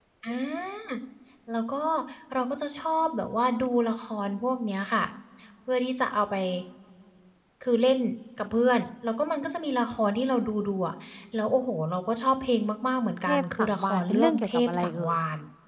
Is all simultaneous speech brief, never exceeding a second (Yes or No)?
No